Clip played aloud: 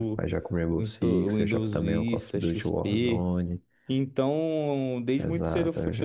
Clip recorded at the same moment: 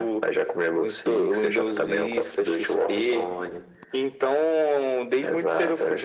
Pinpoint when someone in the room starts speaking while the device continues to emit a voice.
none

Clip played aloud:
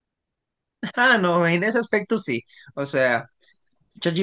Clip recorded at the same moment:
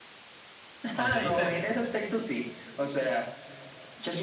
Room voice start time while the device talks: 0.9 s

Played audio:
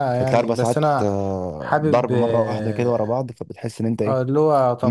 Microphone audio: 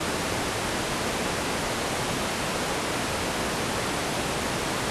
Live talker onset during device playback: none

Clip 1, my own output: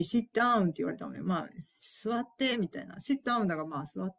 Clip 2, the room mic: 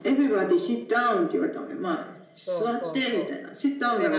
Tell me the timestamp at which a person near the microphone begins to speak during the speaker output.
2.4 s

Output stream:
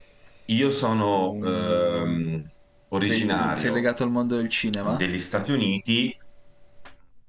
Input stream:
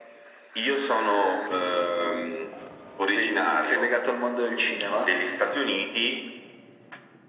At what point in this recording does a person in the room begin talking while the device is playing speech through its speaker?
none

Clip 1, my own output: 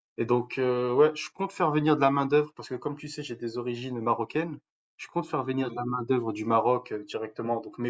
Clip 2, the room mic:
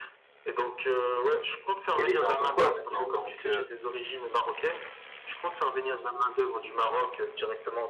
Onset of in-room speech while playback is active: 2.0 s

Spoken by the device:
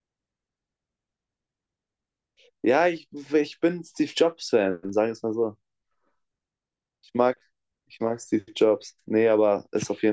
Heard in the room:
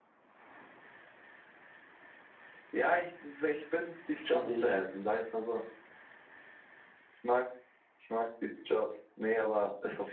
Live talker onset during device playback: 4.1 s

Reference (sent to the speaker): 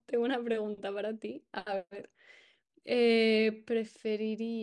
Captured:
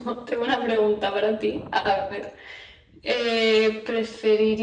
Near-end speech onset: none

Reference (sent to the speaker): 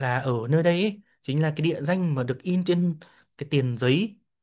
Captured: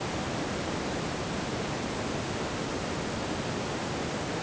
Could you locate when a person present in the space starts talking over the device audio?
none

